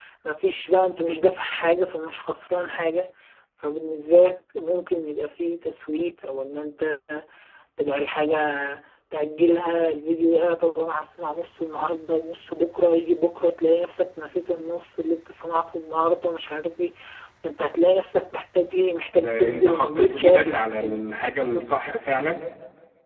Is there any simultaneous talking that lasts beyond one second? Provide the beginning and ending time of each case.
19.1-21.1

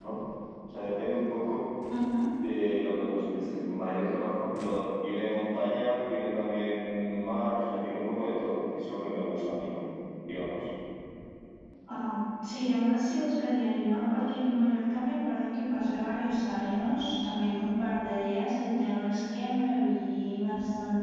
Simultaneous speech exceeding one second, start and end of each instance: none

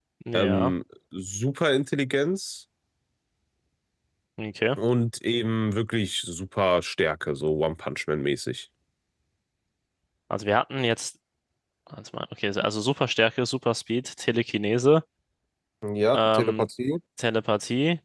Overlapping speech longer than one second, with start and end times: none

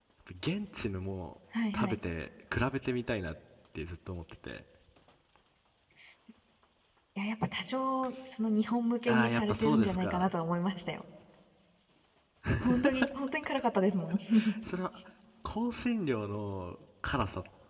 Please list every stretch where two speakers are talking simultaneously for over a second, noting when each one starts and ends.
9.1-10.3

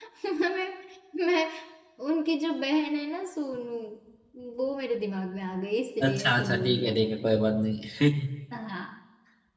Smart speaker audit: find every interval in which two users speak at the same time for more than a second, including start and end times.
6.0-7.3

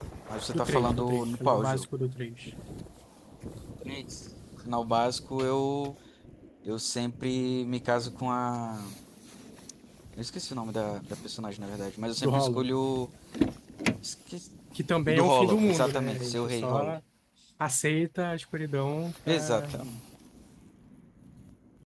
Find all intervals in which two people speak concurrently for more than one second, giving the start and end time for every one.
0.5-1.9, 15.1-16.9

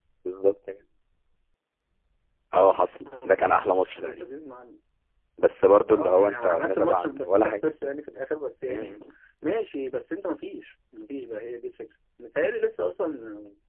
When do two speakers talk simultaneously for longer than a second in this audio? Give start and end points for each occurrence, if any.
2.6-4.3, 5.9-7.7

